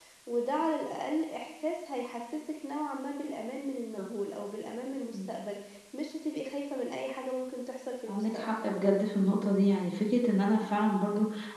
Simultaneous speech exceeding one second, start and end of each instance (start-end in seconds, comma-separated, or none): none